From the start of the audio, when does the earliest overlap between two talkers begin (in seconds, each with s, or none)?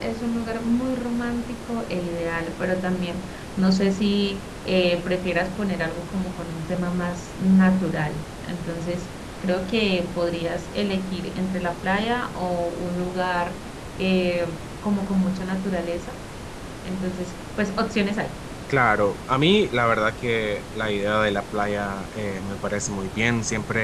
none